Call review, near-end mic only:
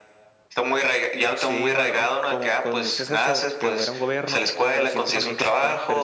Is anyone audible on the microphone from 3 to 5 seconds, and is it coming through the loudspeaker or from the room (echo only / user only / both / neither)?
both